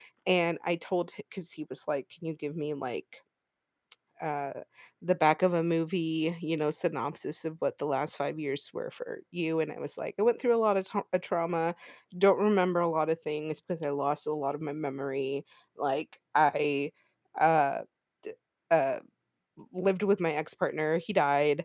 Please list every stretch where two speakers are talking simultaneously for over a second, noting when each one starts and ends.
none

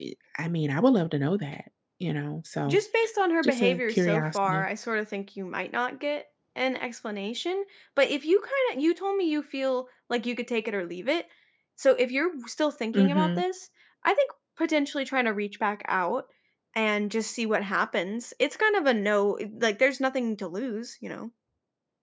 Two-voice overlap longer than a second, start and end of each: 3.4-4.6

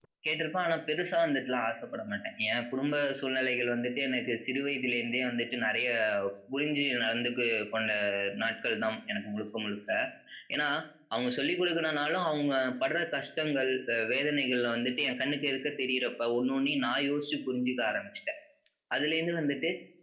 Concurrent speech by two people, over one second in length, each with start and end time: none

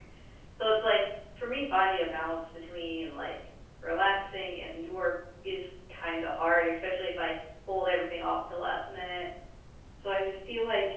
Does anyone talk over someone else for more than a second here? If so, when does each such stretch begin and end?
none

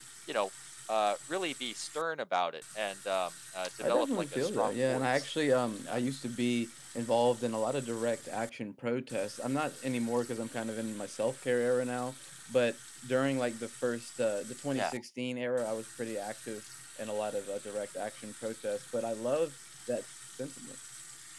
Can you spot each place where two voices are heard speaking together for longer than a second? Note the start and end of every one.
3.8-5.3

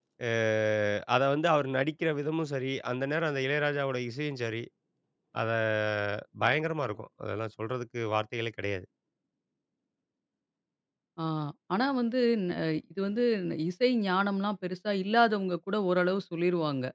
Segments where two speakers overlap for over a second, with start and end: none

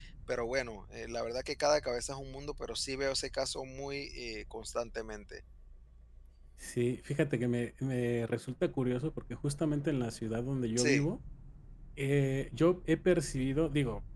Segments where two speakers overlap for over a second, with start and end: none

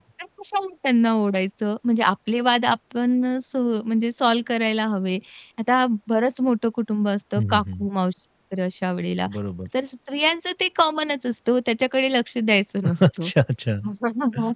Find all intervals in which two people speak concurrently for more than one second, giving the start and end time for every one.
none

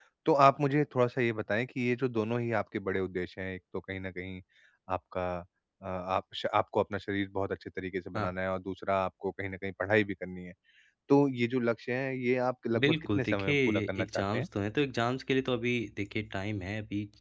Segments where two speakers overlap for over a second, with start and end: 12.8-14.5

